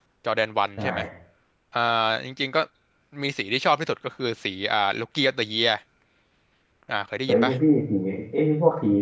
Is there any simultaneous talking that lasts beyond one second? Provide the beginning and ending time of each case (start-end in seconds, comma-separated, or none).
none